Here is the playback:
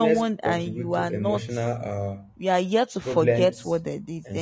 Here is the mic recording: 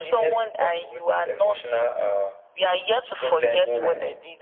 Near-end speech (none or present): present